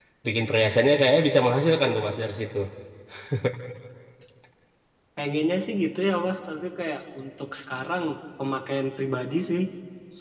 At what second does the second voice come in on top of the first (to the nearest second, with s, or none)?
none